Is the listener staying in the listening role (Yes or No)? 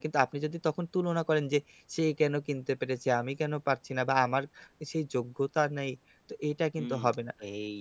No